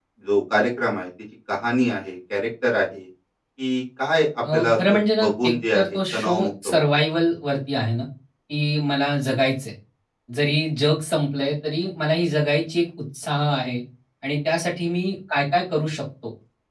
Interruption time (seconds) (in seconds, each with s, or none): 4.4 s